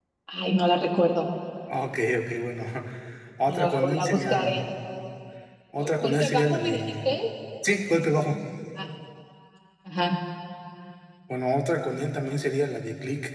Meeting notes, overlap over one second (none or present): present